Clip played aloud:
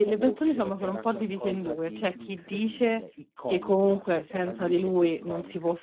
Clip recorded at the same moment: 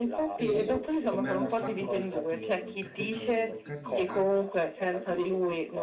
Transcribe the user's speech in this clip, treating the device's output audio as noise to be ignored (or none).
E, come hanno fatto per tutto lo l per tutta la loro carriera,